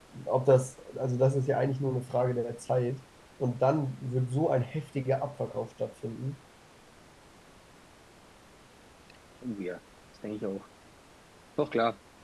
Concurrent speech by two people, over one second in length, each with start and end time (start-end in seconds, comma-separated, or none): none